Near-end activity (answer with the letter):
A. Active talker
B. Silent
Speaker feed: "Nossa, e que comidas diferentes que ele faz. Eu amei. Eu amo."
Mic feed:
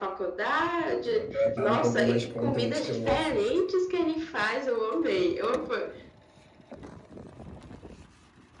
A